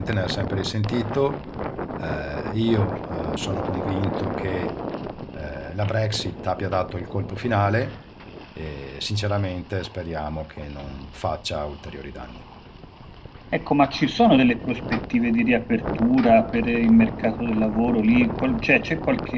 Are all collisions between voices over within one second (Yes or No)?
Yes